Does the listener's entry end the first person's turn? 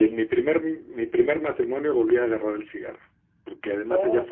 No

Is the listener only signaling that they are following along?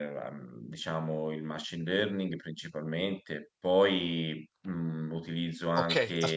No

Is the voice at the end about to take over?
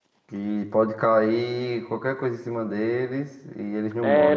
Yes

